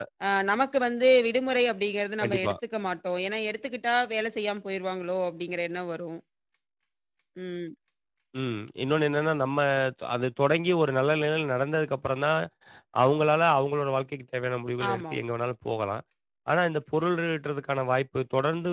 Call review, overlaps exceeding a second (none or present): none